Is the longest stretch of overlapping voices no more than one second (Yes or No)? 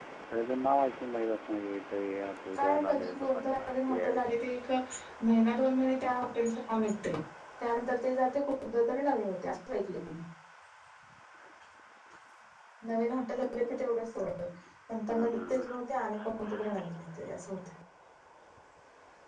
No